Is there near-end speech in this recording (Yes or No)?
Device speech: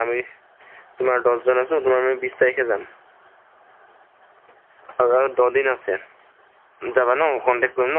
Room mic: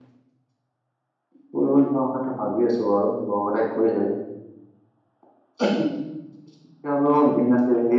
Yes